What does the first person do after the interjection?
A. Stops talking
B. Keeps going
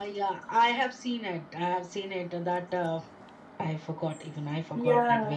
A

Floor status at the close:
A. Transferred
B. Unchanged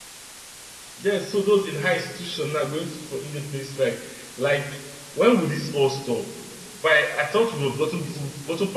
B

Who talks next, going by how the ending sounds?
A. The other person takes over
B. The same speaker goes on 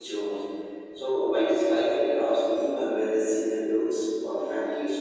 A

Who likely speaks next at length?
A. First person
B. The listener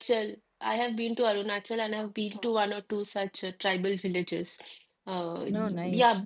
A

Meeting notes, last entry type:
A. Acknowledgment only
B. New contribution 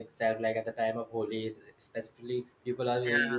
A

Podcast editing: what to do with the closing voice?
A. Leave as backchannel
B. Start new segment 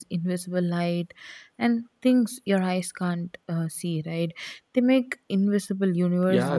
B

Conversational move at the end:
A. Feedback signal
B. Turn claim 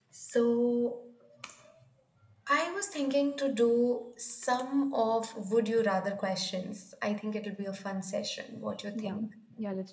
B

